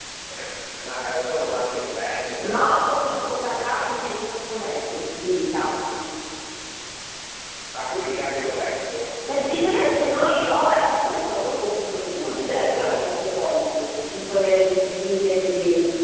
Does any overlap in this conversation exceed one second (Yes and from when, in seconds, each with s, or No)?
Yes, from 2.4 s